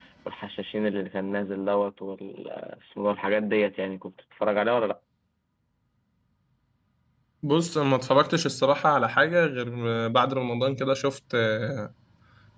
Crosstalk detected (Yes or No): No